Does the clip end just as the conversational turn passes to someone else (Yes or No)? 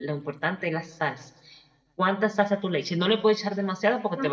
Yes